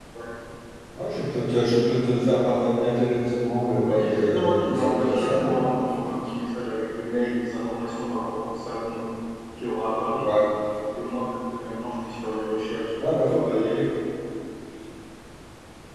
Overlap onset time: 3.9 s

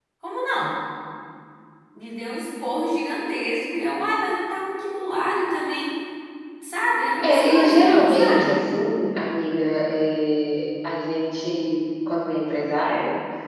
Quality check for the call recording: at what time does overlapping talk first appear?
7.2 s

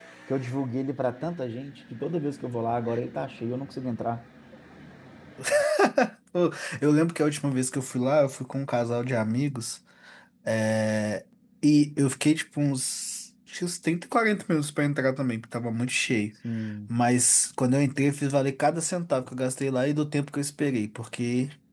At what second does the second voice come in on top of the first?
none

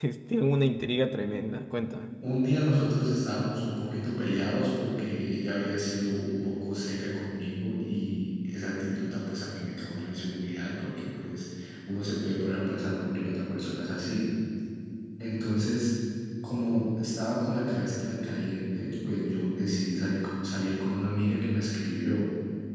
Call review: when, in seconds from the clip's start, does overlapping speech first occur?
none

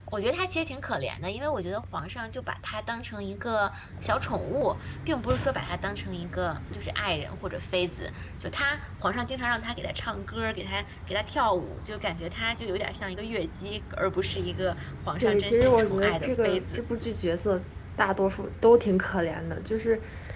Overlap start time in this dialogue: 15.2 s

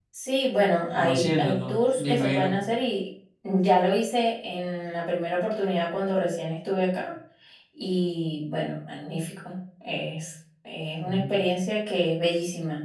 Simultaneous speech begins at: 1.0 s

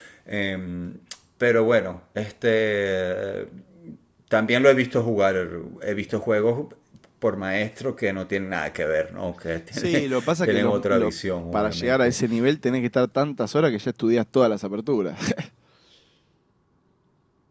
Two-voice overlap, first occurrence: 9.7 s

